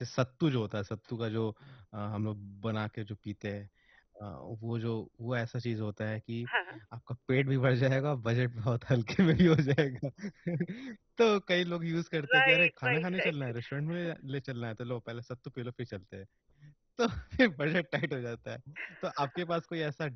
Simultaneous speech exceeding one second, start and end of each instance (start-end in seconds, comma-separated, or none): 12.3-13.5